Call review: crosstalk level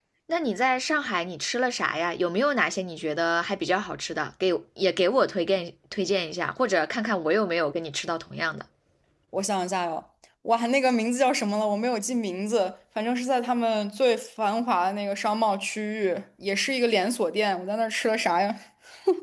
none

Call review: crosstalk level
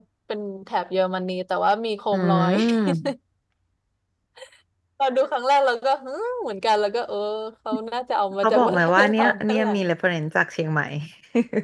present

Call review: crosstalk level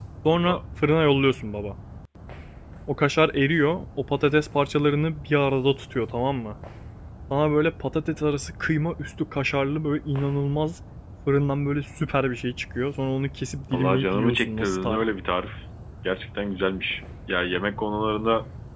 present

